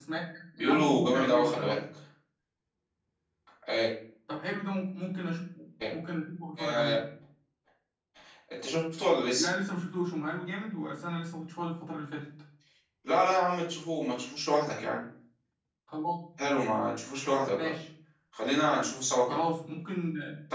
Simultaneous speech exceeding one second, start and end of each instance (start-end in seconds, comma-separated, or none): 0.6-1.8